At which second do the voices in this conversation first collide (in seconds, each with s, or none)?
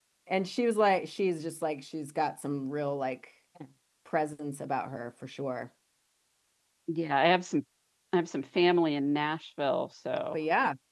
none